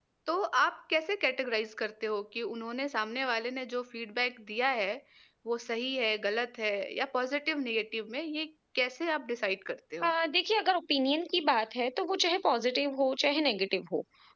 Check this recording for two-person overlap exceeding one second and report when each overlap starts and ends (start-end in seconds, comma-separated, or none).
none